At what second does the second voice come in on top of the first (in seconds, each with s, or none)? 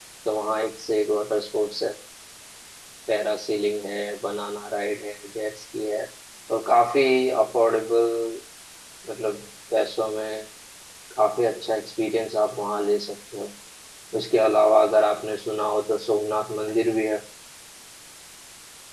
none